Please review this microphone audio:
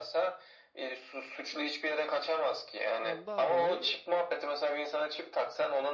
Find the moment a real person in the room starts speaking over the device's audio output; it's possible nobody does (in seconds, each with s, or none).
3.0 s